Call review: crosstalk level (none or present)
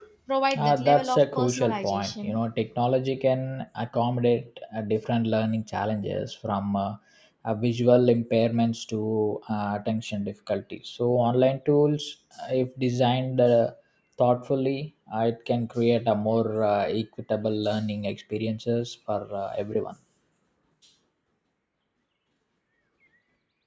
present